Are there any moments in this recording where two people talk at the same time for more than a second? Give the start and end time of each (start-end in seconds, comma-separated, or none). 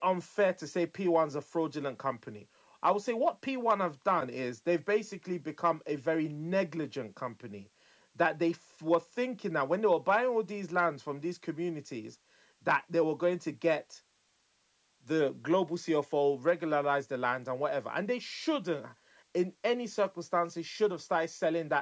none